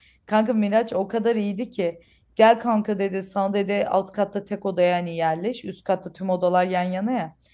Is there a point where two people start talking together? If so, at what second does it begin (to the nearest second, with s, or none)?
none